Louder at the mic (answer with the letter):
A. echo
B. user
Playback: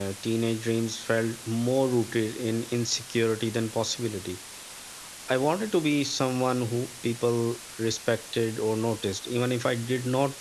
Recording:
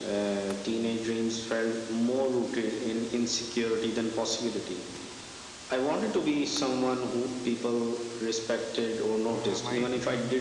A